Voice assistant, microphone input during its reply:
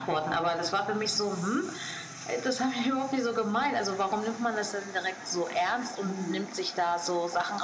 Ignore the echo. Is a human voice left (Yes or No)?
Yes